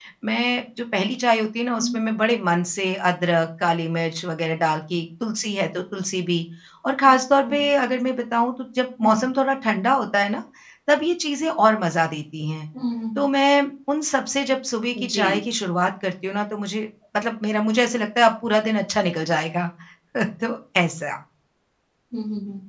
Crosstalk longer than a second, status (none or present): none